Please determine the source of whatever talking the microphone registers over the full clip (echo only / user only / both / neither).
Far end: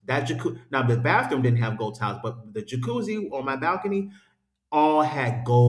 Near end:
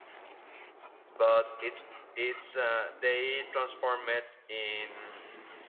user only